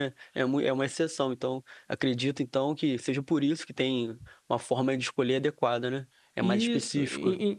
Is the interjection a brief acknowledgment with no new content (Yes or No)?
No